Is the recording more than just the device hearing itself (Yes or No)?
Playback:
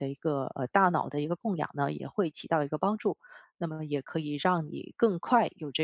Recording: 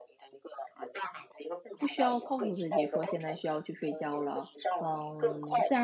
Yes